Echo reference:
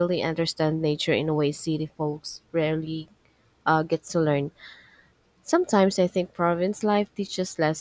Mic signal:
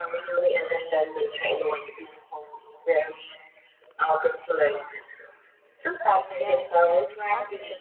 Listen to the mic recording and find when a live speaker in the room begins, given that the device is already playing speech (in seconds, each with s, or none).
6.3 s